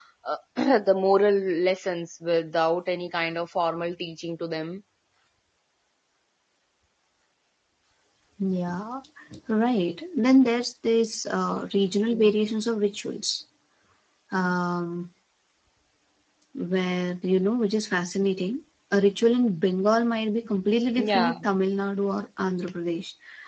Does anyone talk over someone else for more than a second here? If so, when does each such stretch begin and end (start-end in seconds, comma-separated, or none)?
none